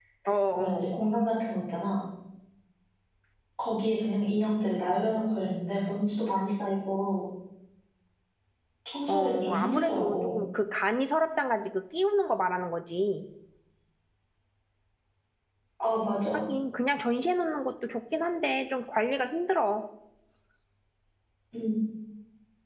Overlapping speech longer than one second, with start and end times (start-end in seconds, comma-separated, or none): 9.1-10.4